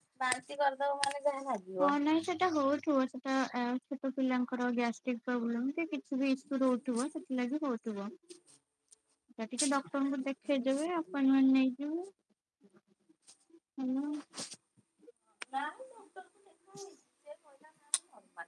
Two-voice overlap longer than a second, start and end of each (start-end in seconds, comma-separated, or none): none